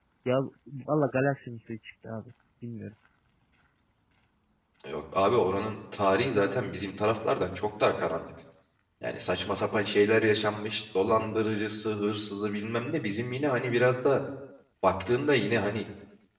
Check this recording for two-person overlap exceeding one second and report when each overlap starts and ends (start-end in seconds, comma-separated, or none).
none